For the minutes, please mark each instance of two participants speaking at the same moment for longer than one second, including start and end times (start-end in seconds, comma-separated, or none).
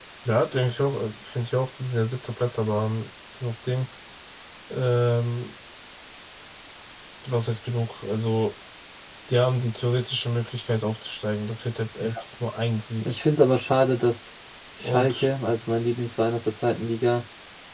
none